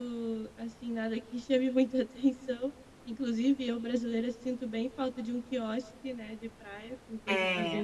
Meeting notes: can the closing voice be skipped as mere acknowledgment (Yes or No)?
No